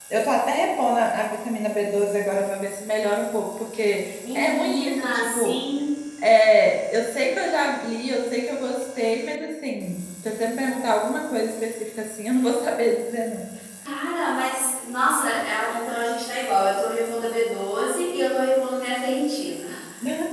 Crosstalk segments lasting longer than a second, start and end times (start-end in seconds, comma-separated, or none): 4.3-5.6